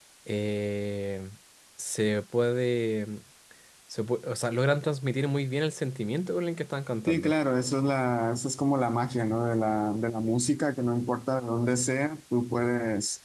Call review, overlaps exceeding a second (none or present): none